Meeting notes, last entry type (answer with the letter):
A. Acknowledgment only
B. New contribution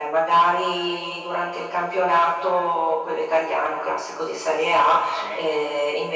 A